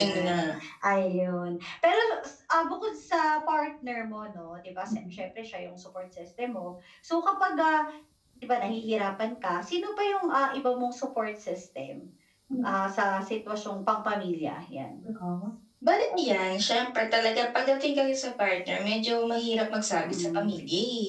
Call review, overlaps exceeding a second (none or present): none